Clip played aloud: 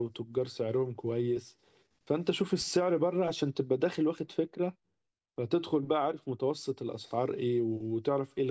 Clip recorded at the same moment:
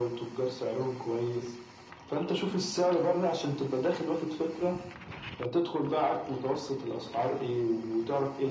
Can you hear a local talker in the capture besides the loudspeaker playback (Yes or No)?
No